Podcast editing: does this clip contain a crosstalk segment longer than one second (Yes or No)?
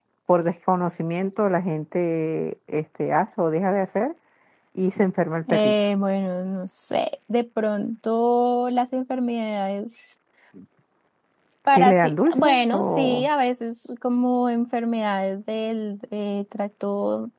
Yes